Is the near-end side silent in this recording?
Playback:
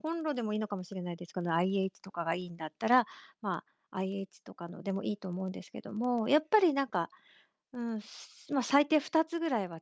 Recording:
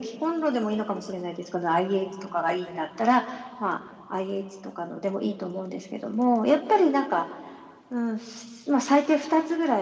Yes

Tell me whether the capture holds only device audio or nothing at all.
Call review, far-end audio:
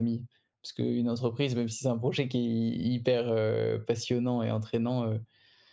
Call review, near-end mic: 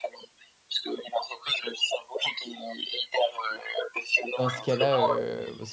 No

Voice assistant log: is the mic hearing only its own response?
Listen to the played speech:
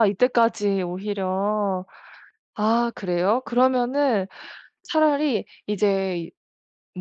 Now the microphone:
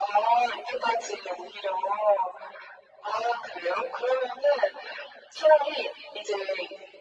Yes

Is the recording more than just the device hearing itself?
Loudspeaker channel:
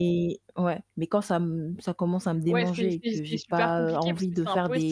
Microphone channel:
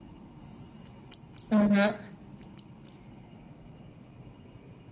Yes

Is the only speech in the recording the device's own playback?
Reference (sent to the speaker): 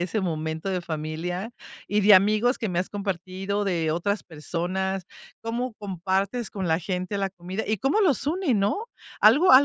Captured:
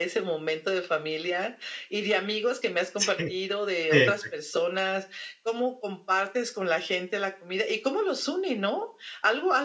No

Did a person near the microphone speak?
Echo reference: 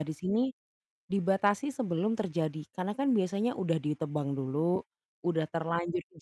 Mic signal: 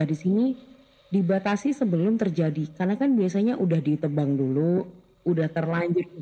No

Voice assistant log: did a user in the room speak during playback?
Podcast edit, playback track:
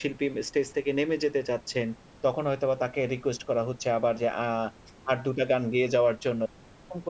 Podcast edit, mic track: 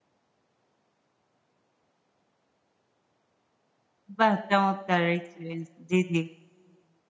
Yes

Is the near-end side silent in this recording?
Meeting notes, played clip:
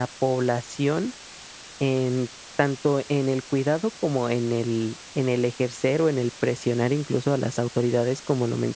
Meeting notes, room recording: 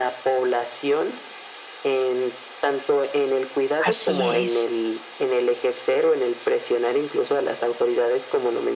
No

